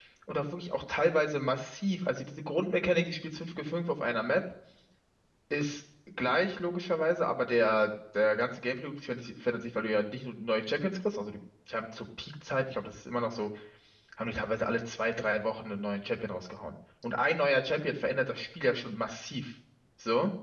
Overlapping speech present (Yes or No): No